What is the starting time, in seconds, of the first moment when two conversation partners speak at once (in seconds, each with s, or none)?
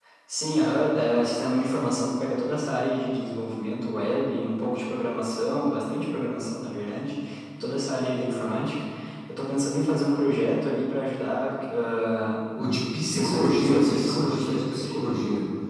13.0 s